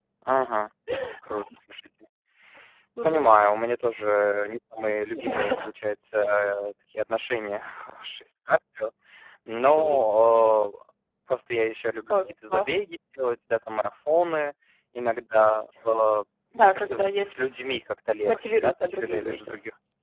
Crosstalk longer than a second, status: present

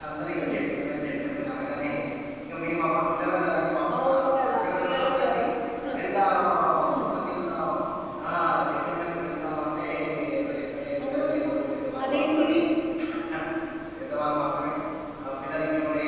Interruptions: present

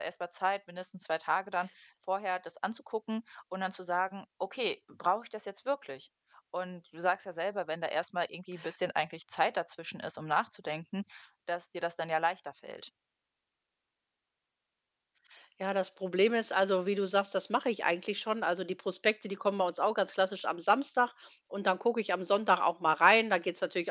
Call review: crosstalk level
none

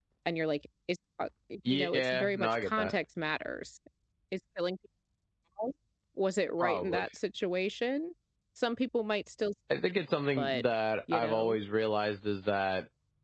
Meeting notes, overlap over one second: present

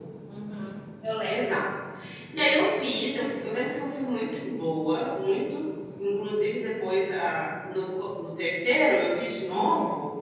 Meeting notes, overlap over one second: none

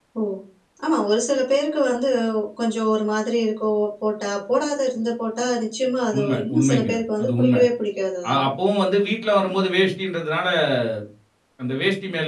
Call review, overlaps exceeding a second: present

